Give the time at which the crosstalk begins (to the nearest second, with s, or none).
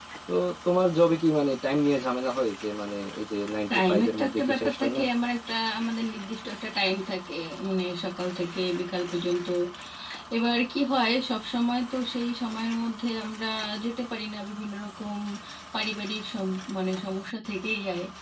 4 s